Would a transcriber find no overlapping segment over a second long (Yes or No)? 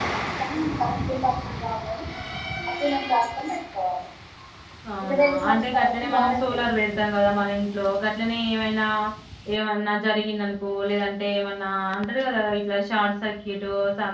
No